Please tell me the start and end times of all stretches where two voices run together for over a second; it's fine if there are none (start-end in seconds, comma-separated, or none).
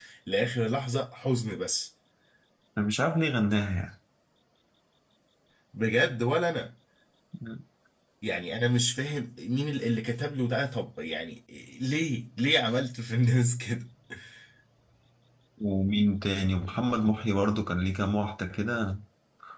none